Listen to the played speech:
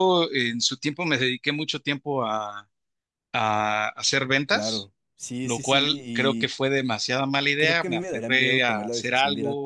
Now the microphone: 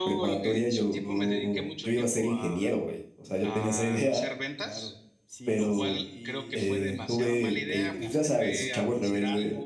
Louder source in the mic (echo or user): user